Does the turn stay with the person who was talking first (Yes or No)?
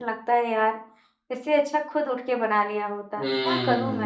No